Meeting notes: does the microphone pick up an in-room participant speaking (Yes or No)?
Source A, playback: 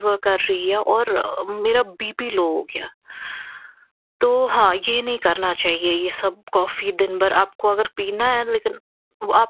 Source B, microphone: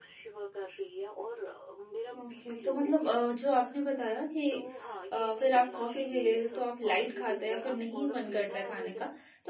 Yes